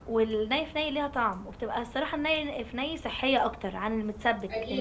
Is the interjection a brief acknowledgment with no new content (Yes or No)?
No